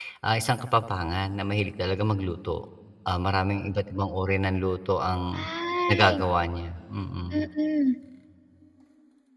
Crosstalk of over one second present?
No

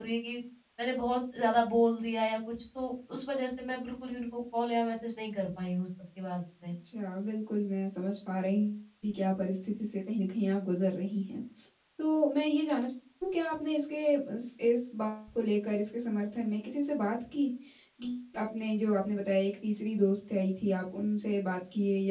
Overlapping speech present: No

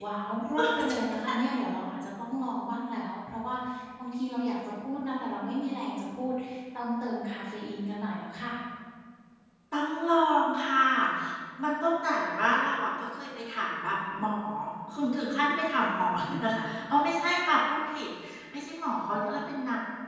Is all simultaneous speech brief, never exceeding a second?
Yes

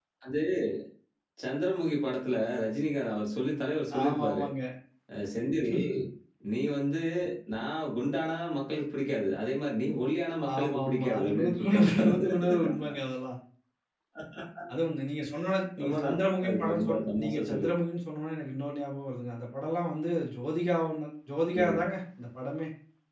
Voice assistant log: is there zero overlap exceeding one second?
No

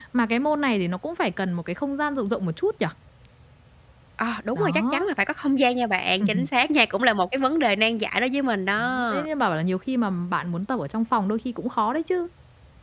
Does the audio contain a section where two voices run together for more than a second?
No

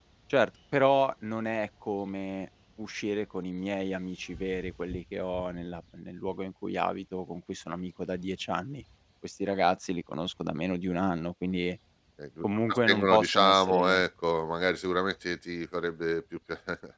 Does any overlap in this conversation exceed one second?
Yes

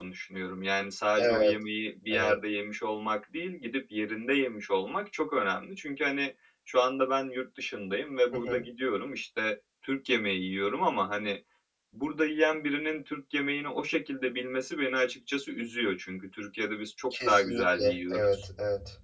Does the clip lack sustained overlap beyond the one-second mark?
No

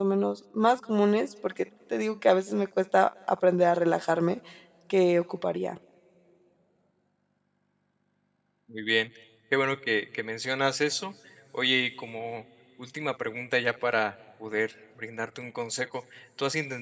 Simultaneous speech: No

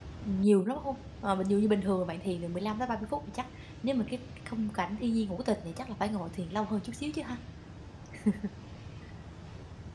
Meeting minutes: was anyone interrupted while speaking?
No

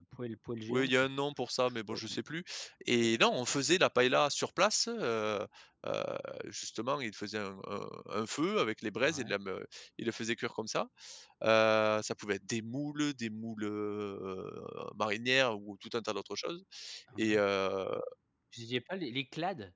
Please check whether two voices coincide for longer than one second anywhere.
No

